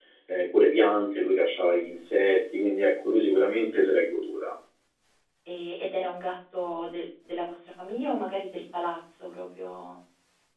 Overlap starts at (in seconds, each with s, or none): none